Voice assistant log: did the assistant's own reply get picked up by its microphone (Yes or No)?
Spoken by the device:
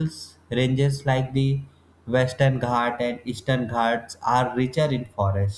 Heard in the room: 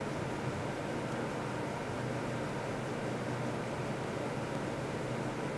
No